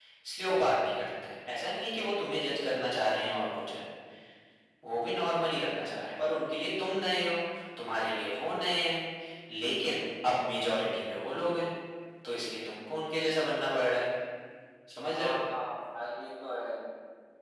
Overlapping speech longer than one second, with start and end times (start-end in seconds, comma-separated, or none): none